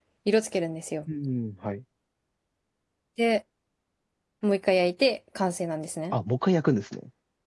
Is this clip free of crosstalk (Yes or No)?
Yes